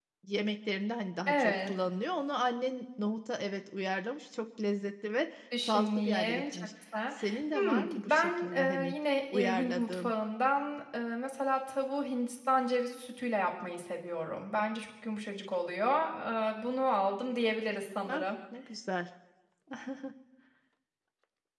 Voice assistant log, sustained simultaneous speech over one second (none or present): present